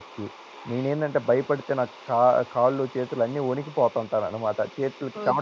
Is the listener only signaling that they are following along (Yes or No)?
No